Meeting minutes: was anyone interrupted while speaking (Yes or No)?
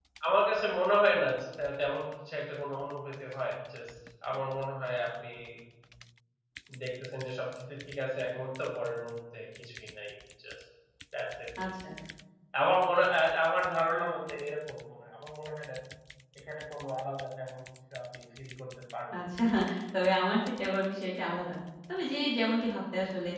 No